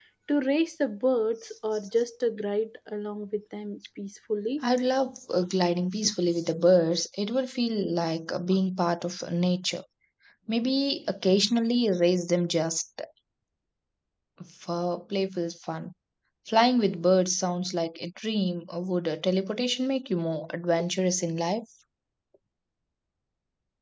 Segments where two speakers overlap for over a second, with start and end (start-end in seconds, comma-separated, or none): none